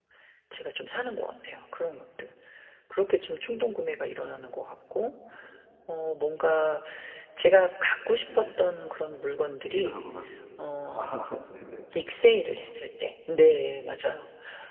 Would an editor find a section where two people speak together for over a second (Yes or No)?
No